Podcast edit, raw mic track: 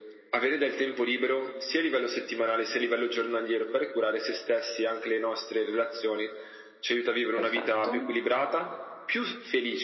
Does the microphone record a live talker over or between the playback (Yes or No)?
Yes